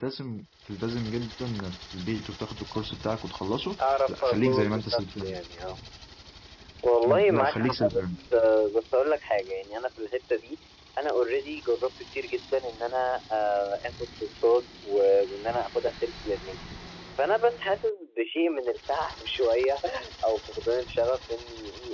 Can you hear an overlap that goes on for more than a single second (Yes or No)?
Yes